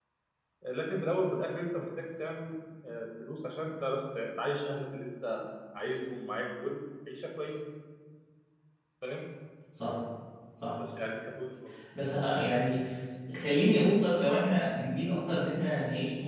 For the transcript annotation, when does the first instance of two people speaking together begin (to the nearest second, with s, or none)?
none